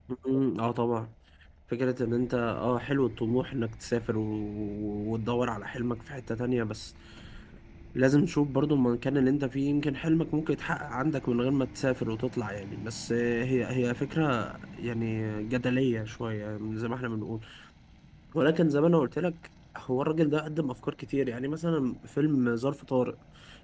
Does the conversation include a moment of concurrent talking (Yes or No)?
No